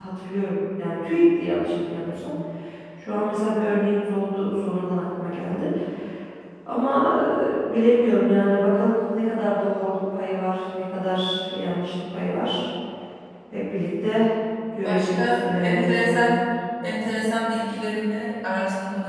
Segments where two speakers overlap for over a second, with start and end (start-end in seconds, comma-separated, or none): 14.8-16.4